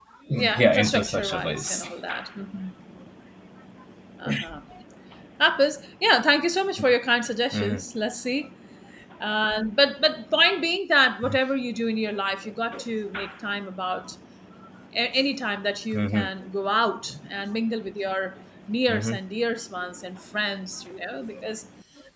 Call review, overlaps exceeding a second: present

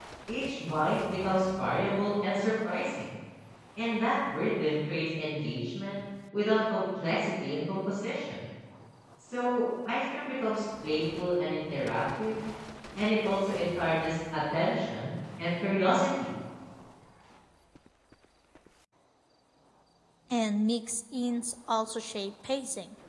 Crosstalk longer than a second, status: none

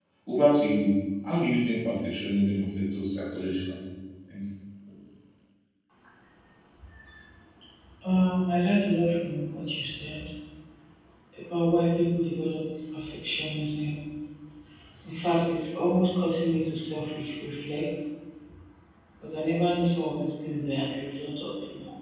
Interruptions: none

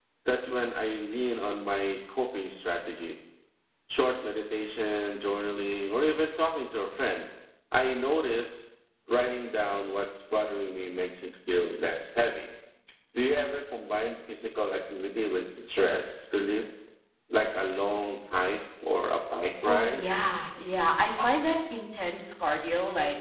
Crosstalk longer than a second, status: none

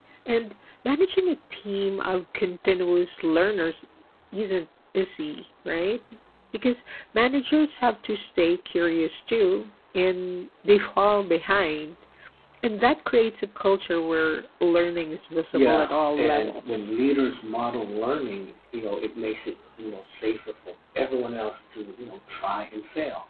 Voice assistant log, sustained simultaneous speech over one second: present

